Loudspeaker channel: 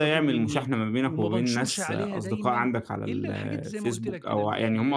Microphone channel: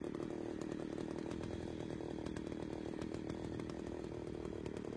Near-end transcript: none

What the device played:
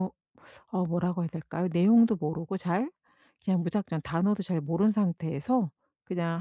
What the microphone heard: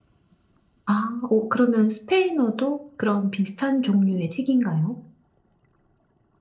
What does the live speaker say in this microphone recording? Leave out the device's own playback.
아 오, 그러면 스페인어도 그런 비슷한 종류의 책인가요?

